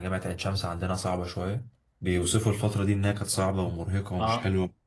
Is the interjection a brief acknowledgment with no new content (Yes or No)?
Yes